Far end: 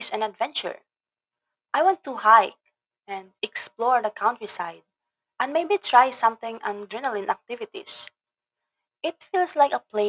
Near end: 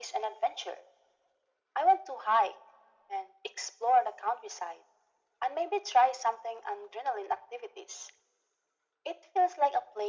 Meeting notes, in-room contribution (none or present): none